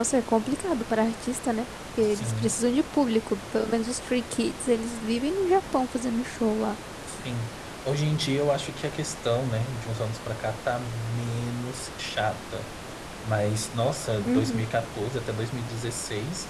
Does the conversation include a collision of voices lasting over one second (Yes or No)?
No